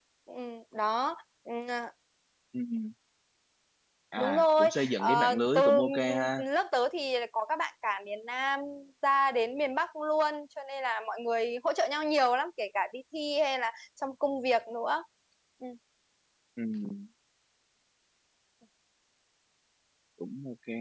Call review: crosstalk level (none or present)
present